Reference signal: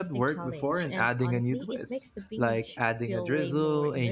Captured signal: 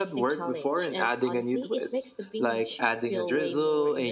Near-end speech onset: none

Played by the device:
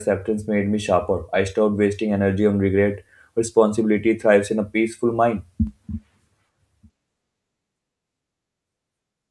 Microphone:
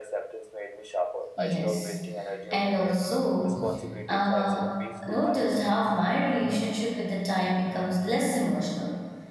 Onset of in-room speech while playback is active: 1.3 s

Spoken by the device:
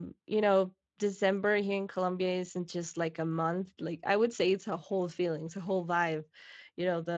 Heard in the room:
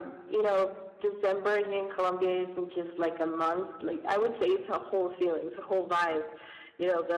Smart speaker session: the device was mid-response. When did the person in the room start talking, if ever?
none

